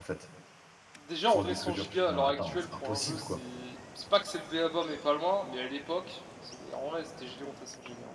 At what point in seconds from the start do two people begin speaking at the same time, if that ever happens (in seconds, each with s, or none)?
1.3 s